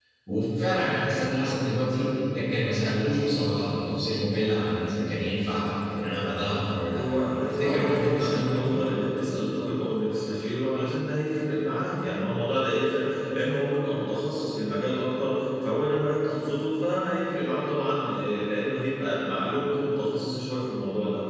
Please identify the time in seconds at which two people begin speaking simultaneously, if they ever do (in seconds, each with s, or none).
7.0 s